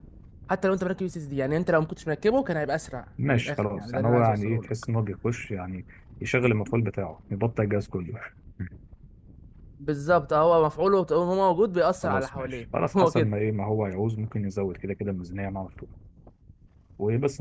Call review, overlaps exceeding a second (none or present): present